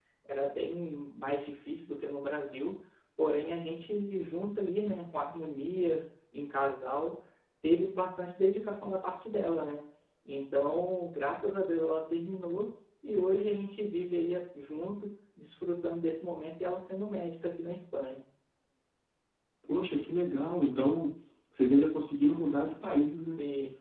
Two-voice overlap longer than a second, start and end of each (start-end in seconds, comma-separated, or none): none